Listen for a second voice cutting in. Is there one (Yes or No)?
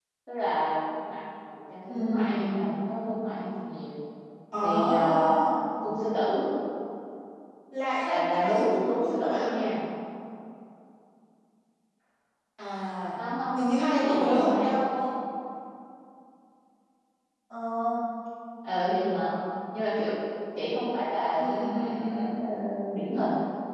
Yes